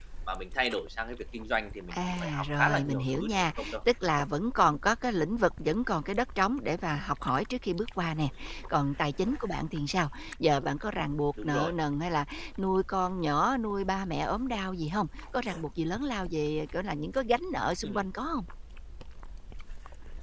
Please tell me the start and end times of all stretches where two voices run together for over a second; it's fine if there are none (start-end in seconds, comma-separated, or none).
1.9-3.8